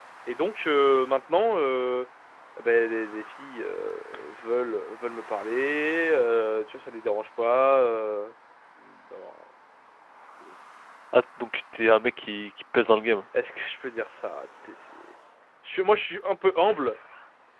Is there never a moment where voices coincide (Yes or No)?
Yes